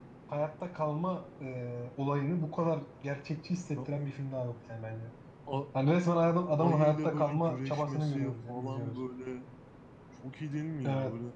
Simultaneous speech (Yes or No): Yes